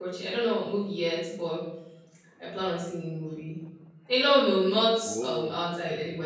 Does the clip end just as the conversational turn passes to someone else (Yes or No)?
No